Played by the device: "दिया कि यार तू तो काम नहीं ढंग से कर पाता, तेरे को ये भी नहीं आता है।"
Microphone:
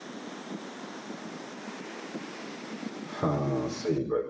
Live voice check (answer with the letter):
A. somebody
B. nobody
A